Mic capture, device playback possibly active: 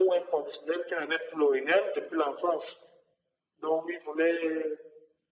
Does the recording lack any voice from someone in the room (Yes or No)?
Yes